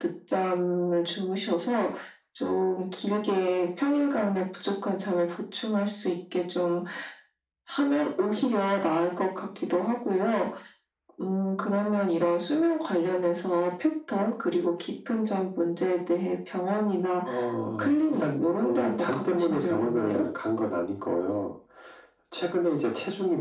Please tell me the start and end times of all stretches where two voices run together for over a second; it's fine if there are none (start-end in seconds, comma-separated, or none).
17.8-20.1